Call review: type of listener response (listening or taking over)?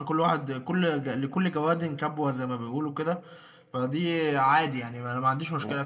taking over